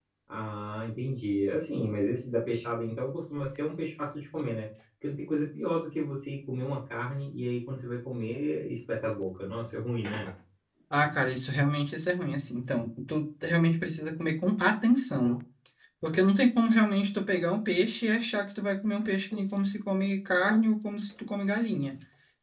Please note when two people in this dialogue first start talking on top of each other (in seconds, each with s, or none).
none